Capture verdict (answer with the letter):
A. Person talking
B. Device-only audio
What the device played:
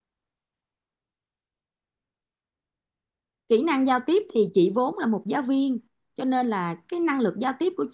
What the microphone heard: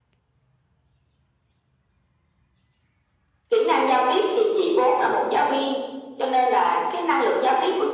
B